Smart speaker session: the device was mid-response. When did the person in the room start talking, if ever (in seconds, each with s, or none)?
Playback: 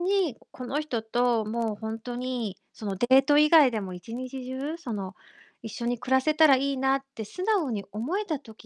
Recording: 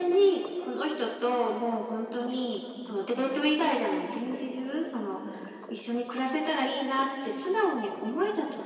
none